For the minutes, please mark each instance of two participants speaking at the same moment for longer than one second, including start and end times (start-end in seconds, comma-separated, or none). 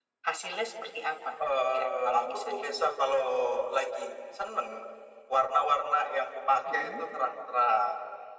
1.5-2.8